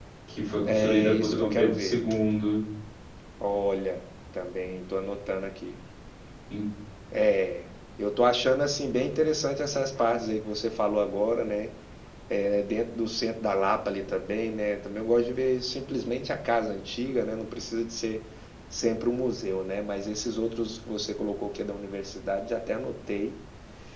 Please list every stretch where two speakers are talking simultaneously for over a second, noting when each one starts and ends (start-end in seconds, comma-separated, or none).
0.7-2.0